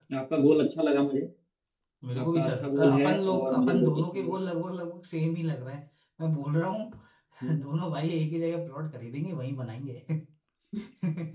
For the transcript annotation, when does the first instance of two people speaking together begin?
2.2 s

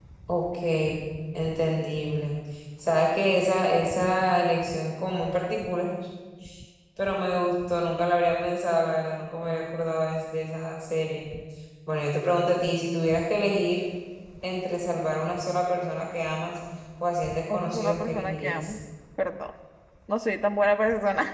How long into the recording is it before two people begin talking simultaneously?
17.5 s

